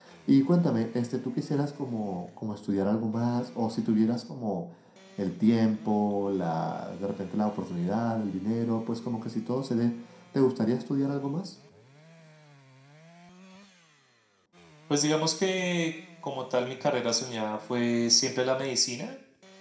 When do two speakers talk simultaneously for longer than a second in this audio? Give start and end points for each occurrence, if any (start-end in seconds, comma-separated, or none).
none